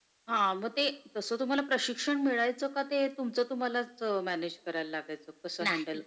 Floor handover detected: Yes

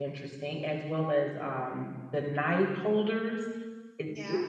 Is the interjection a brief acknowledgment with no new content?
Yes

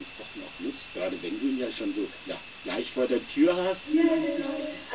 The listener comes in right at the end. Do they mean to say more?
Yes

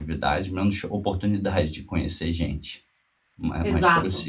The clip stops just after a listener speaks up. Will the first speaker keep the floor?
No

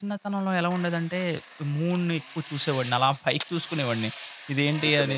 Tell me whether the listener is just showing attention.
Yes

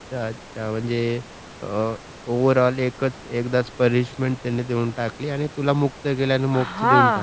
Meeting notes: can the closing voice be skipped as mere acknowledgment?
No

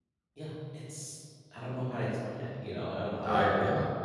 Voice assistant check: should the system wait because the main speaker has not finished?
No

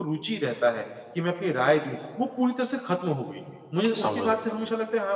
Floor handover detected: No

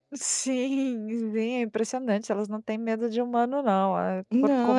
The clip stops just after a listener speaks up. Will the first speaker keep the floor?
No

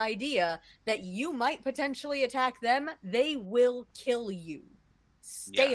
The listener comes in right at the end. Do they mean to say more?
Yes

